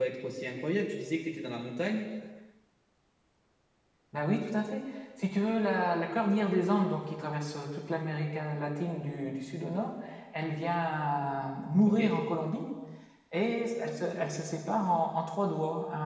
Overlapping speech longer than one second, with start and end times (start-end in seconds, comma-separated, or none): none